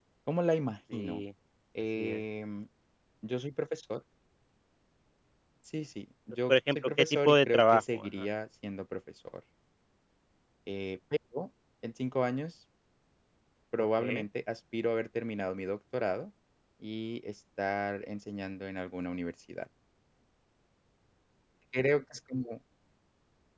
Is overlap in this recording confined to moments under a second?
No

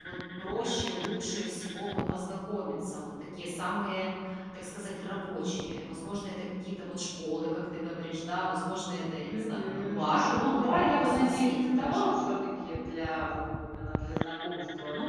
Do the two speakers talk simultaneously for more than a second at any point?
Yes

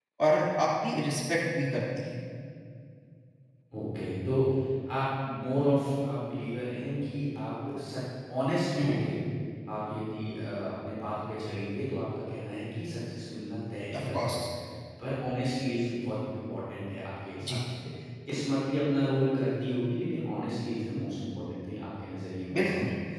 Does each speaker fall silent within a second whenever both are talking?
Yes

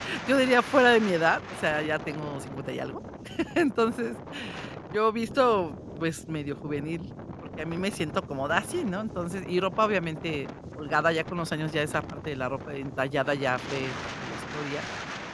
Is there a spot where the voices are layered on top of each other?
No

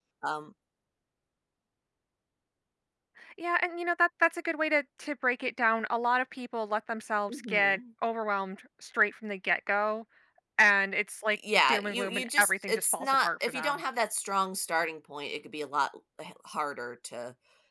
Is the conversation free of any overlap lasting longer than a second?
No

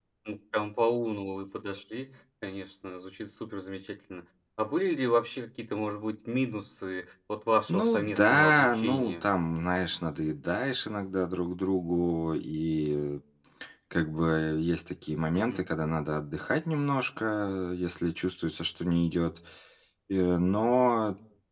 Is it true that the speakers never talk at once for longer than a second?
No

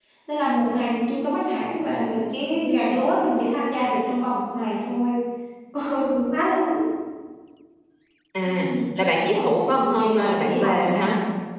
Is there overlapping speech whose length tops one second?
Yes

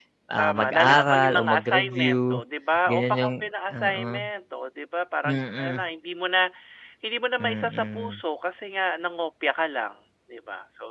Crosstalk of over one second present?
Yes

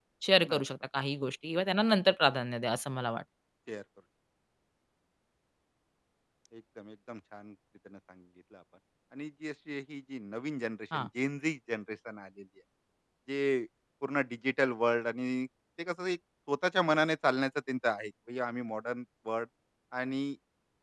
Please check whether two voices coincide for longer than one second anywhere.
No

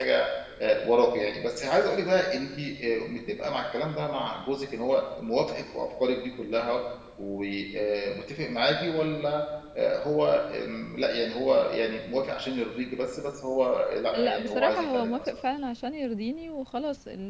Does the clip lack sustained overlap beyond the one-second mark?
No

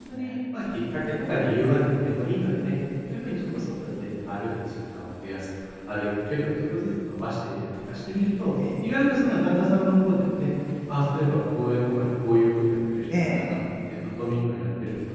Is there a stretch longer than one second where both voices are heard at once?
No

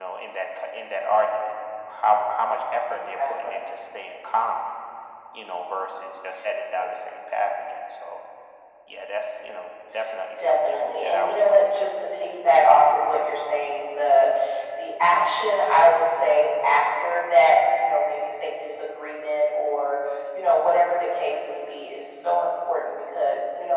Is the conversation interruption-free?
No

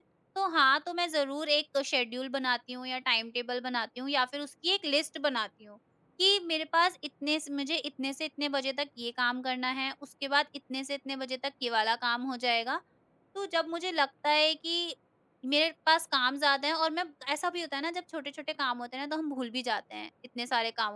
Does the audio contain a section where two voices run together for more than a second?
No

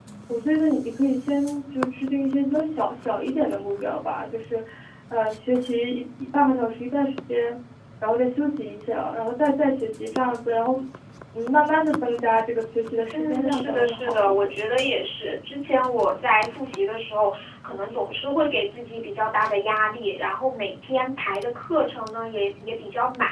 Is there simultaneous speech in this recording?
Yes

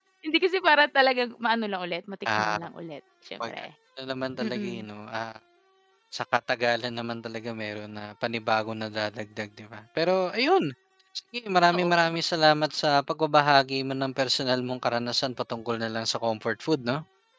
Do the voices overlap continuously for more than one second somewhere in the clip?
No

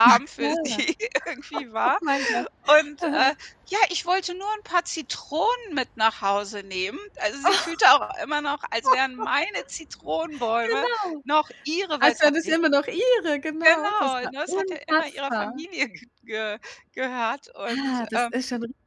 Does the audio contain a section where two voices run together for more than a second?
Yes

